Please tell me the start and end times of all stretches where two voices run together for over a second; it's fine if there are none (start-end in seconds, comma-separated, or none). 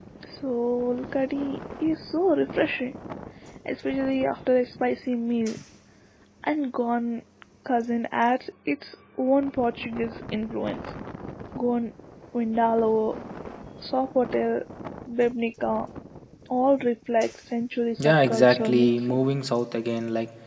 18.0-19.2